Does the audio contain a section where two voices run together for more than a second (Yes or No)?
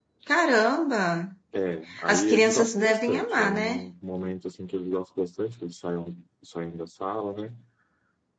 Yes